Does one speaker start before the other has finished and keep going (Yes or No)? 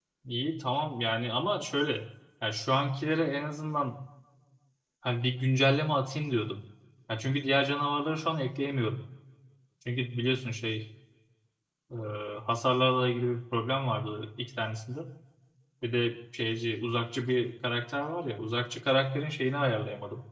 No